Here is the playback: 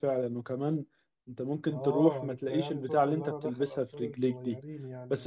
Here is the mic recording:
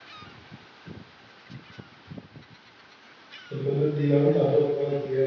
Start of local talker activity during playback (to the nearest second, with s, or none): 3 s